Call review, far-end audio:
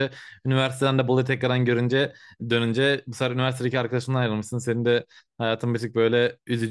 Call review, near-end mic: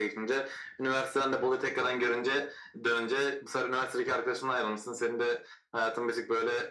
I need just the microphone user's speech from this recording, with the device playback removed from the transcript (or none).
none